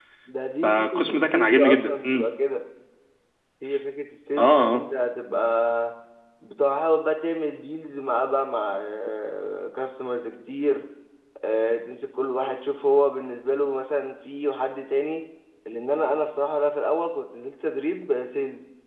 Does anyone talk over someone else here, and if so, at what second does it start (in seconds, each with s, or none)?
0.6 s